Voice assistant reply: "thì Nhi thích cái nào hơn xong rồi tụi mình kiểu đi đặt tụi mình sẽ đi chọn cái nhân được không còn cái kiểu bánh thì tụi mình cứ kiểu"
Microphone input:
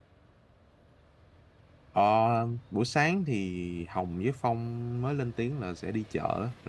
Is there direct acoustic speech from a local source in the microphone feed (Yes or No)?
Yes